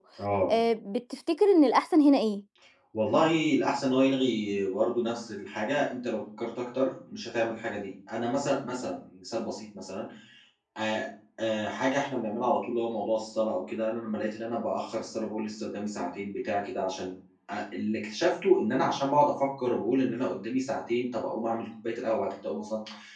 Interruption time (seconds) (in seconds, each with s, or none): none